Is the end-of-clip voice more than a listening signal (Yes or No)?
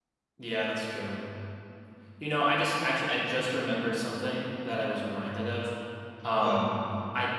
No